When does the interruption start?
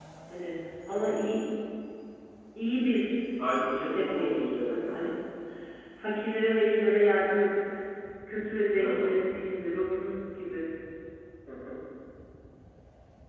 3.9 s

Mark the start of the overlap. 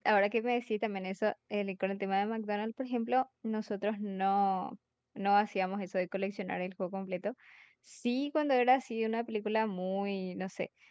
none

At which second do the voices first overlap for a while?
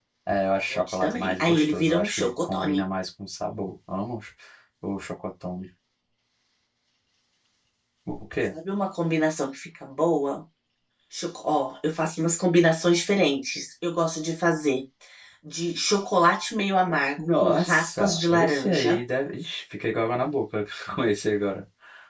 0.7 s

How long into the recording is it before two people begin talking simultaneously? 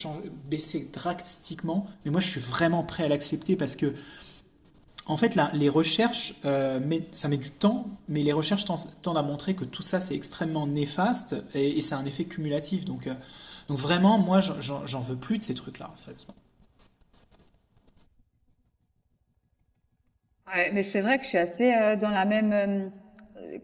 none

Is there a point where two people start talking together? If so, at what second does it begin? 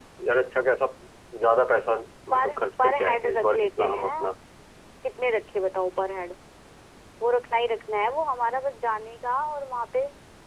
2.3 s

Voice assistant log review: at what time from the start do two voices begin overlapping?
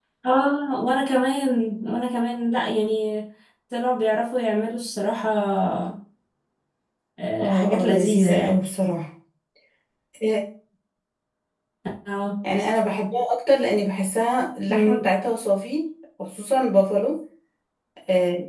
7.4 s

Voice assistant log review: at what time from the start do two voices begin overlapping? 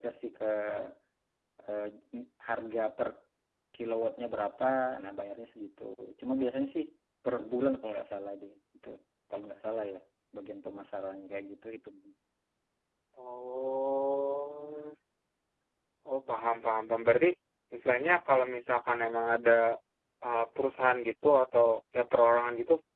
none

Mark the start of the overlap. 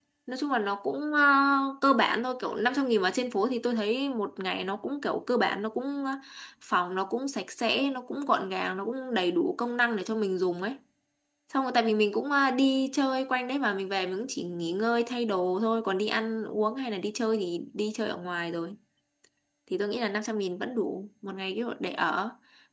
none

